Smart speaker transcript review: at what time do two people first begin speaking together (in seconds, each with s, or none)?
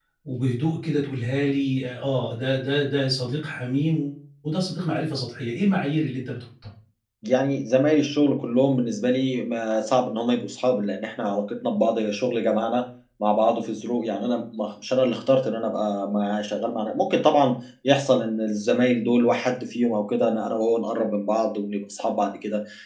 none